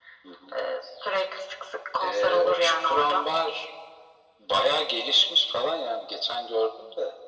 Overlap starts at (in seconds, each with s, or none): 2.0 s